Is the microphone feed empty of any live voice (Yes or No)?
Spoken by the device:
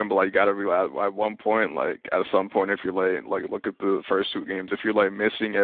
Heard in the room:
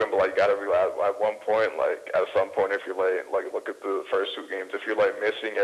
Yes